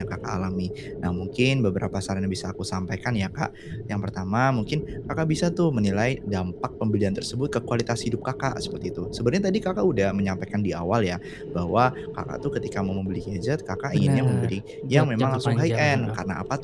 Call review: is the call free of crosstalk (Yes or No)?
No